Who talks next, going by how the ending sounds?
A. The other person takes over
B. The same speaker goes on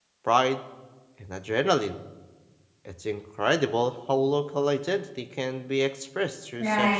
A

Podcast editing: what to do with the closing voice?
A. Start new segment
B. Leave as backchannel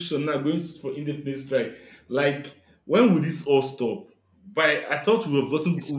B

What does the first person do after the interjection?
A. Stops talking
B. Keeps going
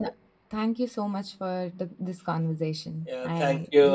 A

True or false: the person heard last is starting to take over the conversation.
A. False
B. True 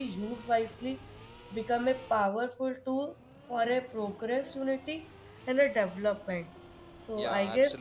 A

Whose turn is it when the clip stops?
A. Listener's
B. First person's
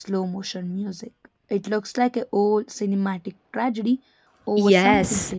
A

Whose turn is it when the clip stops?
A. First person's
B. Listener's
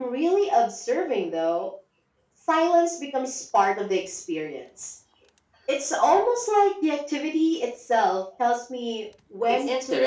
B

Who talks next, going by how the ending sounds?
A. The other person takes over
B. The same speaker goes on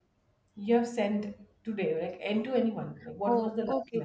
A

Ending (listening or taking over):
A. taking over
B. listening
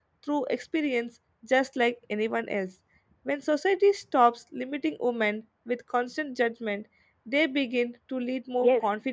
A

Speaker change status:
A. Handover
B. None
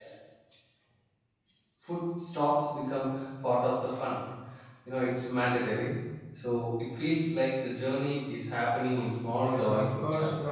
A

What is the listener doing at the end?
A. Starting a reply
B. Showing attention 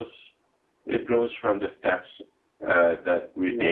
B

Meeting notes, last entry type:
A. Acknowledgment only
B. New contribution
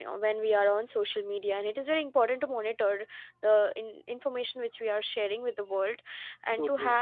A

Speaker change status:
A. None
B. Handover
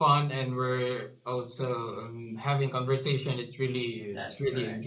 A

